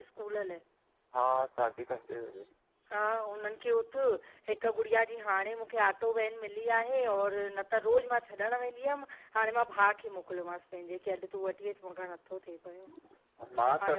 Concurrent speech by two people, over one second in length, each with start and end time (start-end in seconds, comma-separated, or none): none